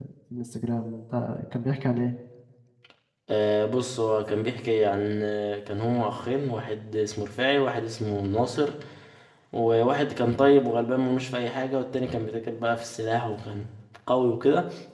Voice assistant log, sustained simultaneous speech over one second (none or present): none